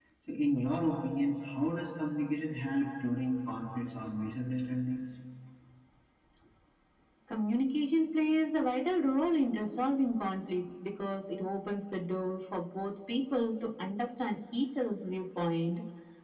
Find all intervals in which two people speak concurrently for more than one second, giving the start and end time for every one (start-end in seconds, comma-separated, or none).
none